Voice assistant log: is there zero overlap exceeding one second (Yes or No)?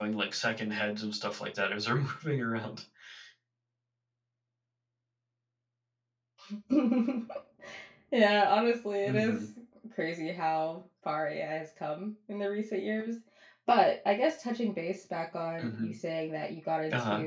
Yes